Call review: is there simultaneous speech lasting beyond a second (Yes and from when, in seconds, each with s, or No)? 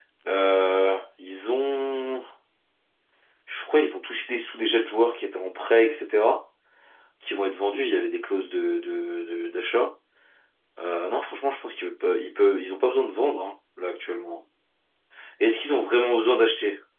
No